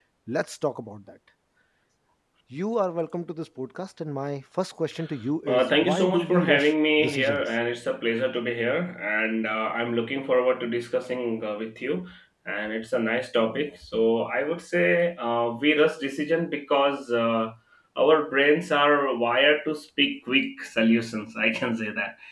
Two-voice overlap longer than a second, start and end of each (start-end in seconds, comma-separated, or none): 5.5-7.5